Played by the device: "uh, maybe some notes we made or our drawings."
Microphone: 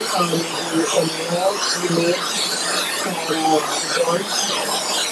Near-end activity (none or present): none